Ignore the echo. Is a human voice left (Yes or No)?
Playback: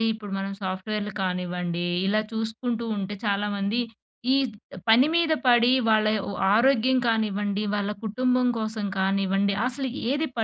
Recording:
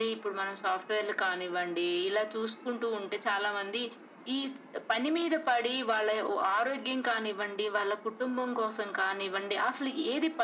No